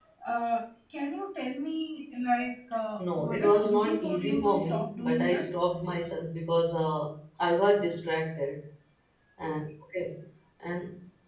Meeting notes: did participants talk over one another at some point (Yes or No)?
Yes